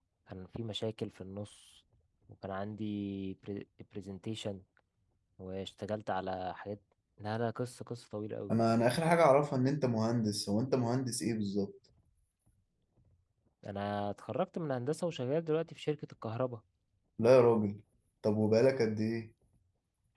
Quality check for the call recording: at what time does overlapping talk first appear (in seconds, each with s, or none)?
none